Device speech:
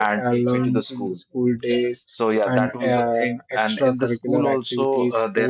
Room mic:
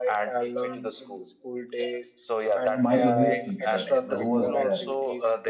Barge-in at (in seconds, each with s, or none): 2.8 s